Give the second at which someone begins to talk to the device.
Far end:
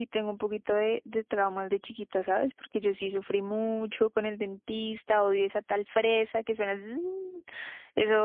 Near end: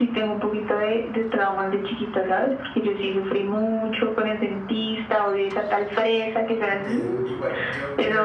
6.7 s

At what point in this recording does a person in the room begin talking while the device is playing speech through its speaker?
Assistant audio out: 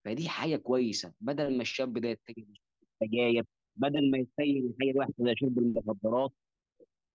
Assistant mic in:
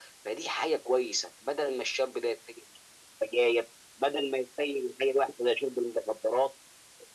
none

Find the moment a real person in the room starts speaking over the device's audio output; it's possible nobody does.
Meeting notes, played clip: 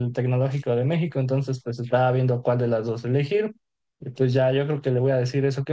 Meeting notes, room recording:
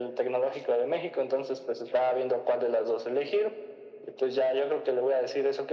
none

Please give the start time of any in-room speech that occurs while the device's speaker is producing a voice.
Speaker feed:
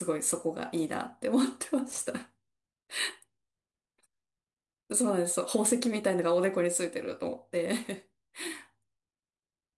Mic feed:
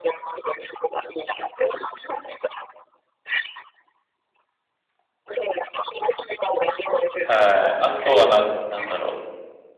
7.2 s

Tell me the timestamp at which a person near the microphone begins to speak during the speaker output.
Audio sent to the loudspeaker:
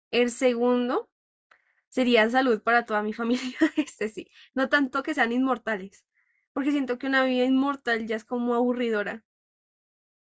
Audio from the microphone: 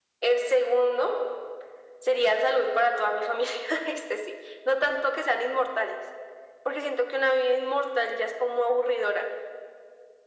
none

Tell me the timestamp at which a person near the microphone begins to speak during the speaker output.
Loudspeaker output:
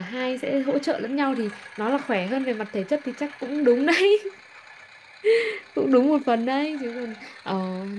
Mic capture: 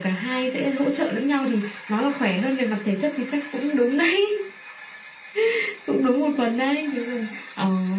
none

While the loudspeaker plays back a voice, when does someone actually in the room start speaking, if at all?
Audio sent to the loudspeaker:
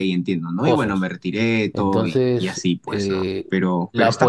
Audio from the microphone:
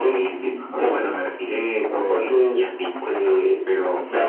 none

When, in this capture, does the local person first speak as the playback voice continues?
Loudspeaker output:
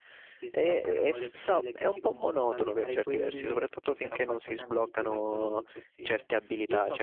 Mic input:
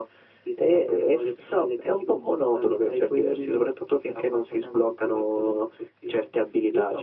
none

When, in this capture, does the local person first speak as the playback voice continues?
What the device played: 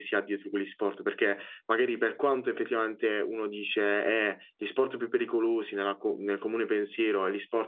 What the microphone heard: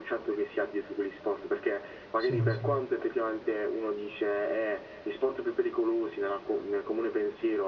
2.1 s

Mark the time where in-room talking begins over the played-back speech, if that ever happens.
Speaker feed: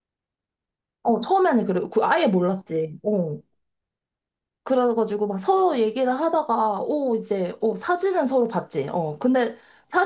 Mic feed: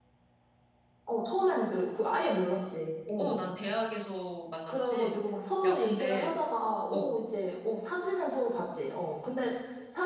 3.1 s

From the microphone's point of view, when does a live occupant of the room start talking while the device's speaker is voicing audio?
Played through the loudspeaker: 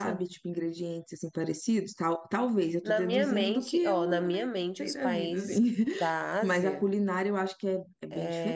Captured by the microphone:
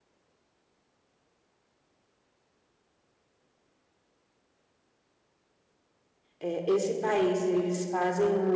6.4 s

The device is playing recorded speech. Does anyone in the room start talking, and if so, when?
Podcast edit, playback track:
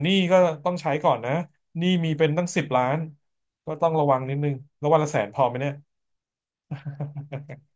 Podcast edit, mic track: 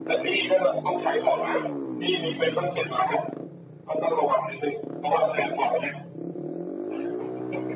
none

